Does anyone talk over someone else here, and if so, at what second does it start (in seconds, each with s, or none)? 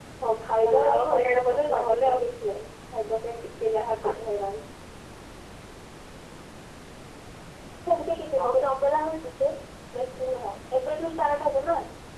0.6 s